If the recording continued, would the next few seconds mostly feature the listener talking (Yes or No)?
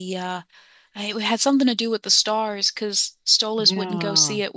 No